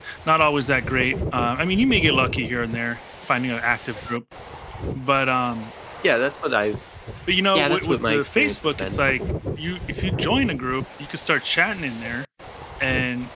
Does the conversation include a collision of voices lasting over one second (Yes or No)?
Yes